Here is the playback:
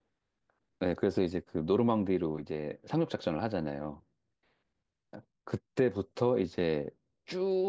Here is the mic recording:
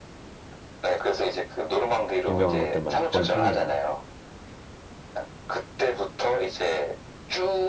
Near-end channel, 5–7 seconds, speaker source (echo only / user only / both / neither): echo only